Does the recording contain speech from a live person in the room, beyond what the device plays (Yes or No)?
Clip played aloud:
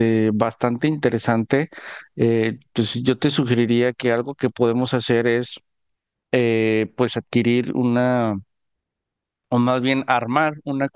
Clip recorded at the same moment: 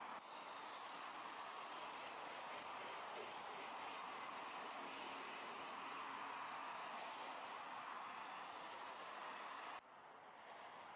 No